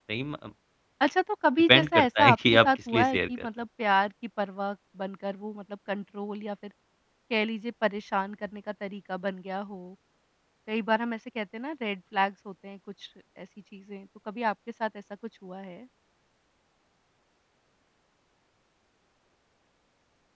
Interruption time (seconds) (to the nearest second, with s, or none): 2 s